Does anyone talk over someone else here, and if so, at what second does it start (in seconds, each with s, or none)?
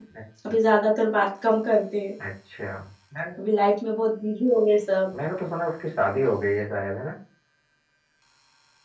none